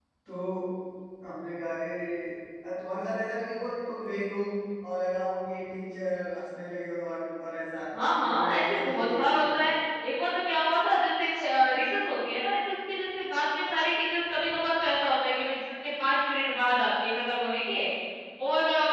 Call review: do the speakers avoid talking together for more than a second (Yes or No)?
No